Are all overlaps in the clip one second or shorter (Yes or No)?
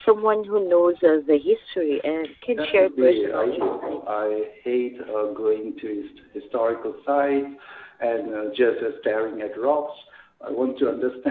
No